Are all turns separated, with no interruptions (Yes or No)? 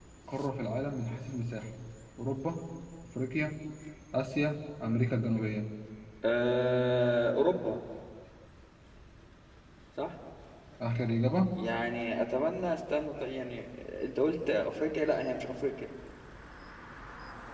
Yes